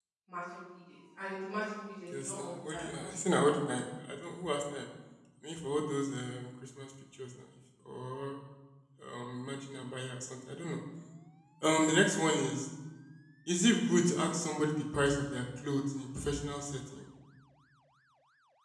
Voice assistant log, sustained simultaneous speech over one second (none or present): present